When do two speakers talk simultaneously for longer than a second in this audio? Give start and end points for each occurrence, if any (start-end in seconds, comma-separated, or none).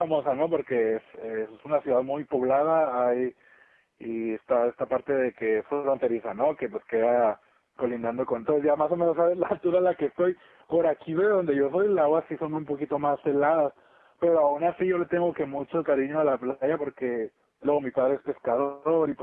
none